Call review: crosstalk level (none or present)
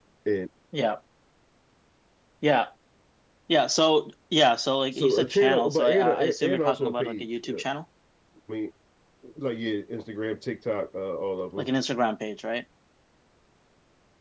present